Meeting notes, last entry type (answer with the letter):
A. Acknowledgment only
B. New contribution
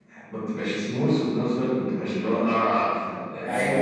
B